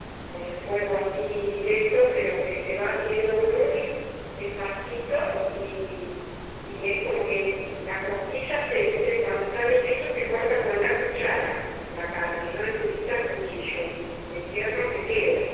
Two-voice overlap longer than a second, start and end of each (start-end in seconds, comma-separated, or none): none